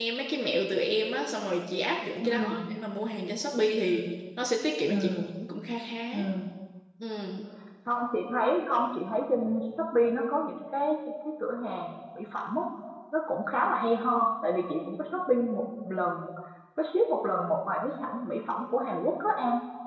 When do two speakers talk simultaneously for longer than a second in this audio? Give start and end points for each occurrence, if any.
none

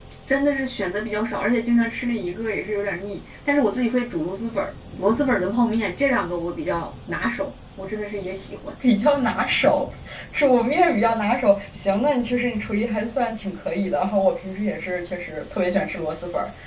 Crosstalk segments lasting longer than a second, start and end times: none

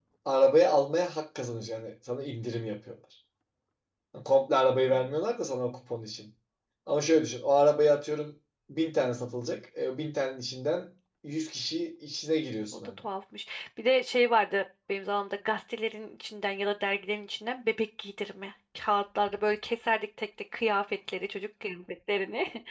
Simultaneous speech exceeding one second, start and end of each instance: none

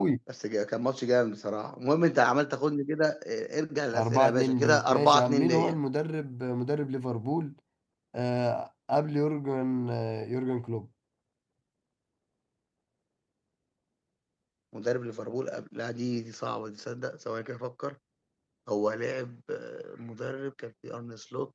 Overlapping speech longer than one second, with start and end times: 3.9-5.8

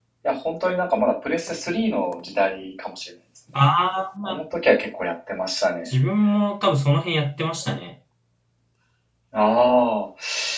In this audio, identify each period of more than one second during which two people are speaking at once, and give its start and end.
none

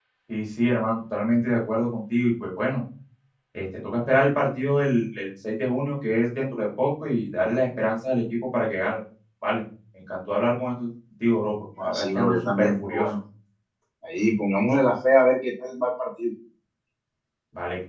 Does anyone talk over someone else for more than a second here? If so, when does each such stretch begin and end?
11.8-13.1

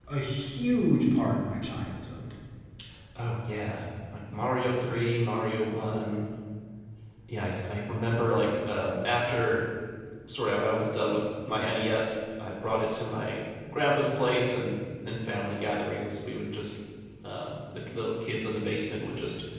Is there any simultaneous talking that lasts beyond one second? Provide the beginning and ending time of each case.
none

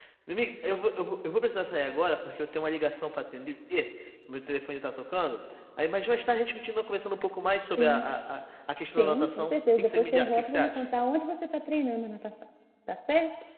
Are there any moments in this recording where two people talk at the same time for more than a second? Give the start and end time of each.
9.0-10.8

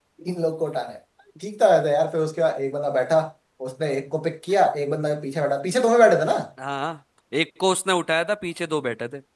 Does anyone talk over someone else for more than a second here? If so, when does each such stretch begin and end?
none

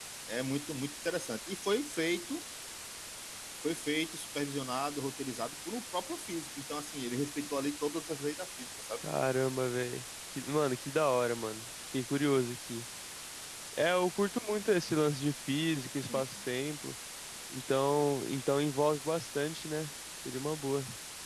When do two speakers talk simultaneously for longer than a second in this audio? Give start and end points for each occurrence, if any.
none

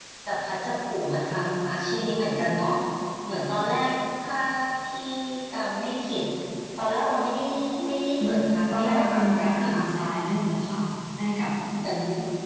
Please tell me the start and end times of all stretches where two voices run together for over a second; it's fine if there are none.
8.2-9.8

